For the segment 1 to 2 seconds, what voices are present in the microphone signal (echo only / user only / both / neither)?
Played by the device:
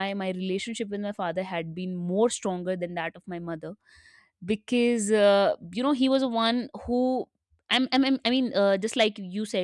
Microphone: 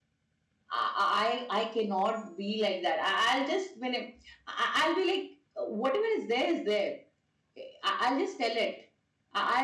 user only